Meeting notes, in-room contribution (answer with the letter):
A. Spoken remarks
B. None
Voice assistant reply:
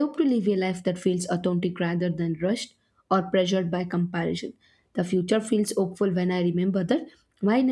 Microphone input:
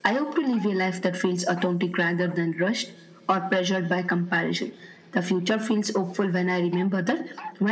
B